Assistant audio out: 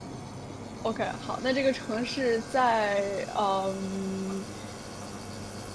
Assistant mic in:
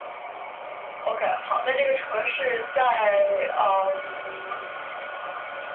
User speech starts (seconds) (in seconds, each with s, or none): none